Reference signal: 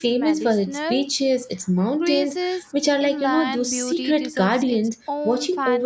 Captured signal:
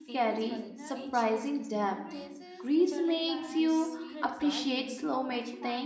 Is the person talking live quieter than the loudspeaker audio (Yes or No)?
No